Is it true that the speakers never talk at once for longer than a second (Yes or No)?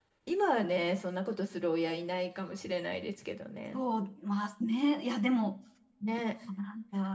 Yes